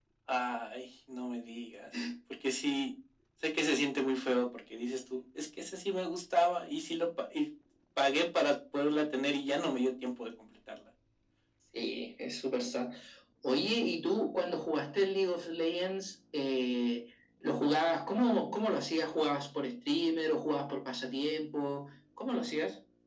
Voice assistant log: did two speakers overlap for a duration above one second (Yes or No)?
No